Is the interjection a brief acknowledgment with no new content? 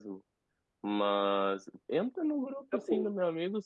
Yes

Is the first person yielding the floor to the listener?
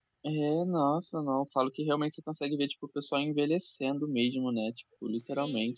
Yes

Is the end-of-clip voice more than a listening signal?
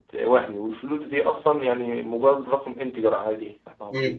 Yes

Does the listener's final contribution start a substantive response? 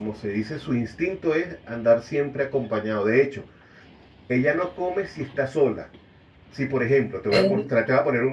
No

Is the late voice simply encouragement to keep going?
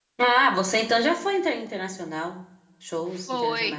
No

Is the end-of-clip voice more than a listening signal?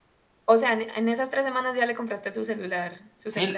Yes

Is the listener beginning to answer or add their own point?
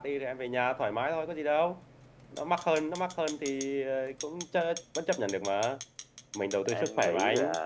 Yes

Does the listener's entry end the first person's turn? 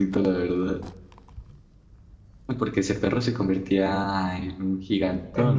Yes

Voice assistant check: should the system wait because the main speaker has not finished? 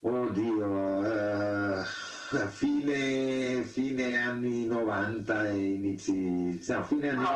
No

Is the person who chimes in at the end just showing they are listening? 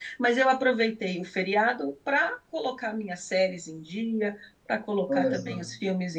Yes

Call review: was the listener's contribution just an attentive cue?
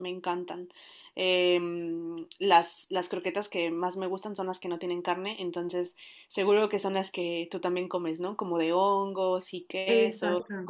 No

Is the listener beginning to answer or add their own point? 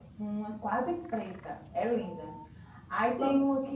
No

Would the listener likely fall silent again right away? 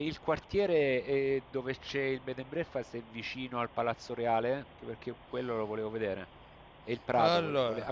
Yes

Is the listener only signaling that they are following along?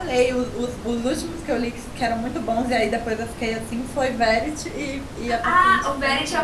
No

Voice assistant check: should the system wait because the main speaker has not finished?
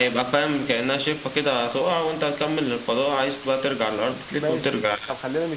No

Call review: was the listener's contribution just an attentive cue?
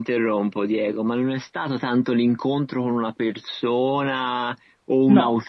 Yes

